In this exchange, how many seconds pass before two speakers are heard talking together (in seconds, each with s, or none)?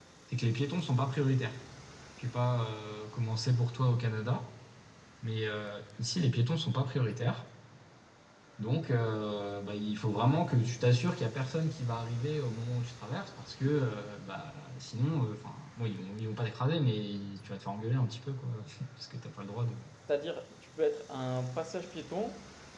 none